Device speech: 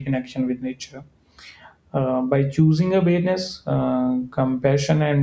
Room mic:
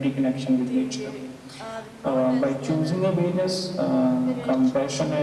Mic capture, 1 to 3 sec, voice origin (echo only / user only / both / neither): both